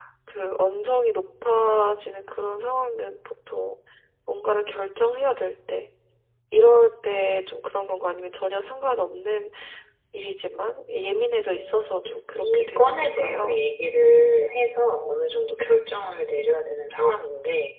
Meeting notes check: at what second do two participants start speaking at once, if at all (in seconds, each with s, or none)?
11.6 s